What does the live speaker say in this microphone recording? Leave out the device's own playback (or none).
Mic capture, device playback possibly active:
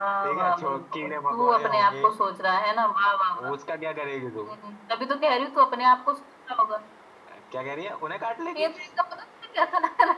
none